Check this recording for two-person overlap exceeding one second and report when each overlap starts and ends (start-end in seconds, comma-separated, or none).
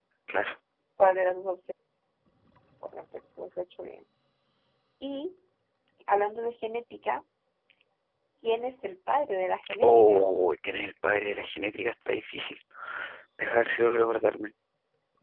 none